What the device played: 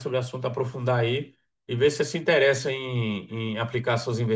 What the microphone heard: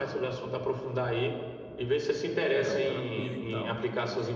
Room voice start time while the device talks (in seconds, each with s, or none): 2.5 s